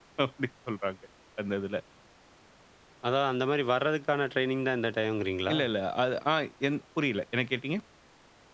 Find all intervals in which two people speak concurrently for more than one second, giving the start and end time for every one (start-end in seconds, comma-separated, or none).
none